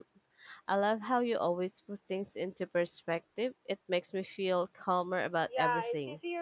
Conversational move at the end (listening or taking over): taking over